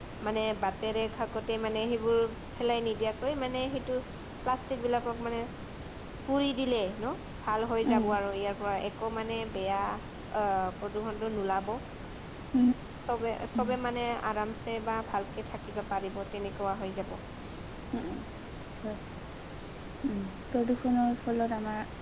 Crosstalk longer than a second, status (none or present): none